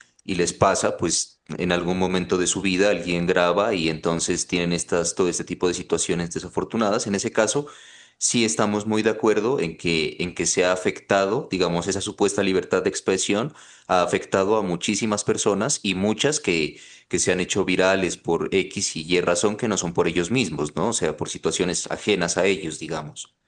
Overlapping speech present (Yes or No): No